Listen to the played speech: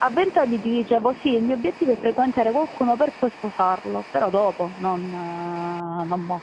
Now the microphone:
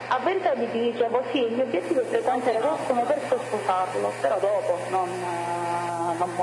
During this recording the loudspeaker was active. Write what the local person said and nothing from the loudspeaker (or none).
è opinabile, è opinabile, cioè...